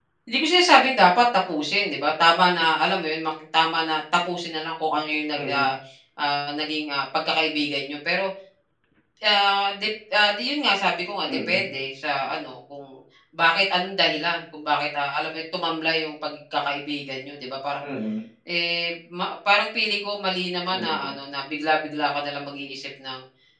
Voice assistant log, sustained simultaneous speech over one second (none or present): none